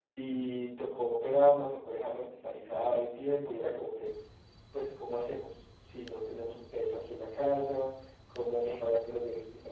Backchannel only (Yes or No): Yes